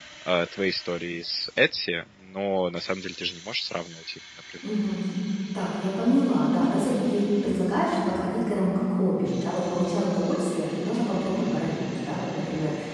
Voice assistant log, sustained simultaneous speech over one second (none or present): none